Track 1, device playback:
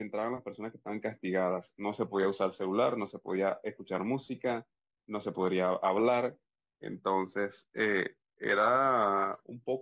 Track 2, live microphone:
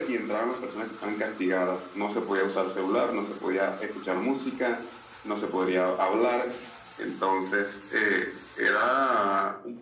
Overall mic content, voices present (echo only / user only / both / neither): echo only